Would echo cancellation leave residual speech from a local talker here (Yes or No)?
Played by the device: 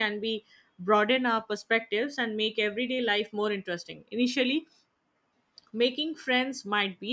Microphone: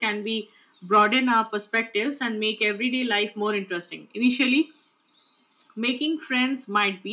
No